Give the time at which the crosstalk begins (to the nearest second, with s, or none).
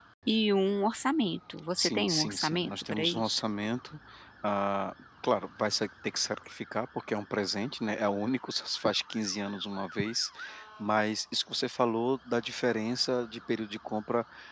2 s